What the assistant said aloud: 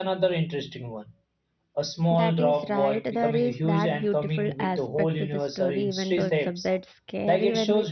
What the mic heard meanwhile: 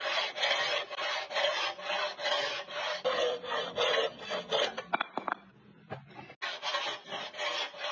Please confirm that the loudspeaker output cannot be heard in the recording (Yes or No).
Yes